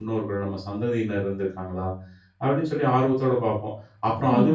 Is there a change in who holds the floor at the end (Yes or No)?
No